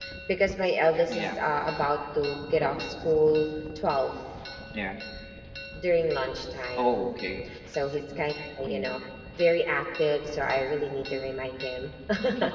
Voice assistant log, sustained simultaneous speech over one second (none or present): none